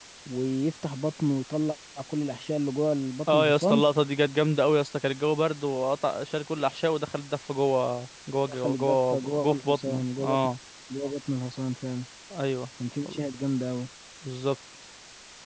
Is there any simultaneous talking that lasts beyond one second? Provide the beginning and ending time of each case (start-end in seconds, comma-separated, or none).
8.6-10.4